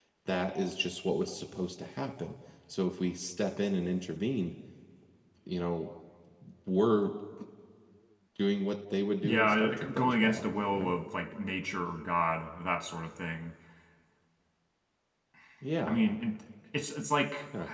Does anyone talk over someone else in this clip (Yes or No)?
Yes